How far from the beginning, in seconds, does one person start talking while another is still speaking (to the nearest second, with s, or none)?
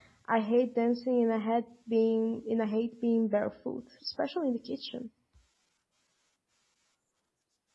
none